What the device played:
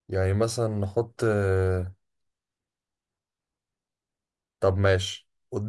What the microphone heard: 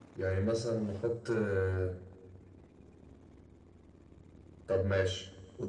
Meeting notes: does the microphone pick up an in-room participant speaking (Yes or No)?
No